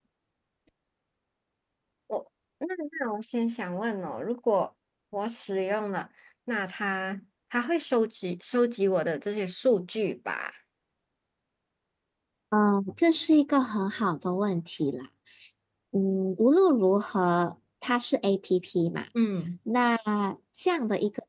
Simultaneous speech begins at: none

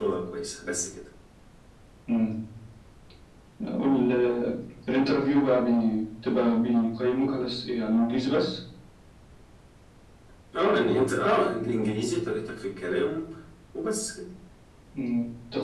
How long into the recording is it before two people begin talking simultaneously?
none

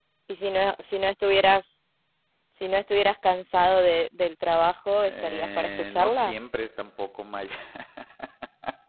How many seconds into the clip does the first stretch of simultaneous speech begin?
5.0 s

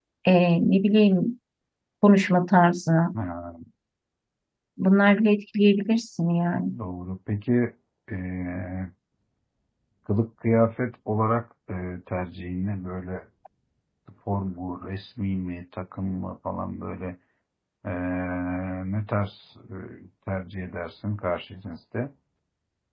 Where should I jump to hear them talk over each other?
none

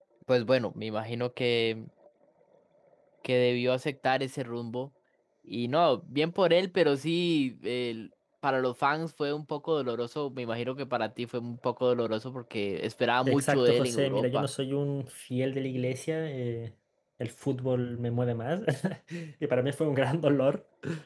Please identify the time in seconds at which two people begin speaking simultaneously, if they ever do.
13.2 s

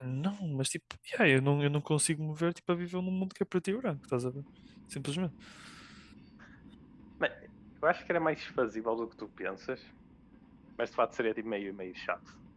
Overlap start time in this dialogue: none

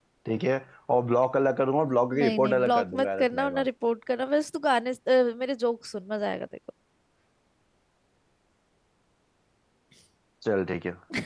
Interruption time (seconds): 2.1 s

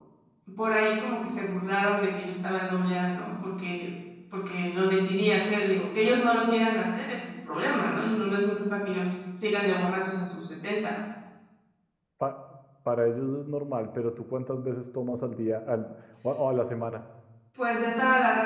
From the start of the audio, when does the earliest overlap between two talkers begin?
none

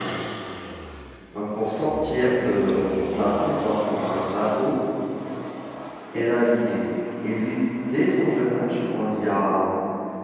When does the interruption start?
none

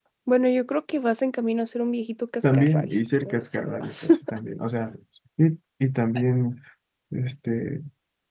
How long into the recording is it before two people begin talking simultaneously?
2.4 s

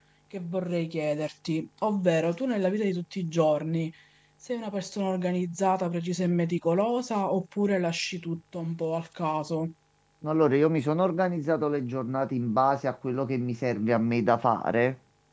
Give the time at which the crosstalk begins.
none

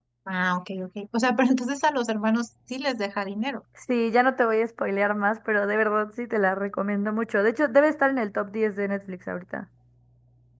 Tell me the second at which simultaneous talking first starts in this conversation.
none

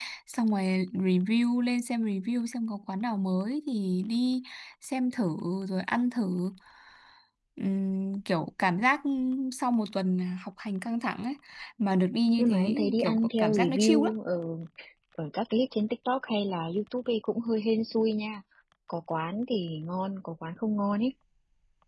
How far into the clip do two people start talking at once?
12.4 s

